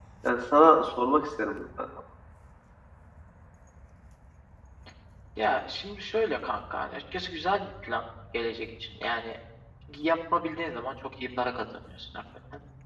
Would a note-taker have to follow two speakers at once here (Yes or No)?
No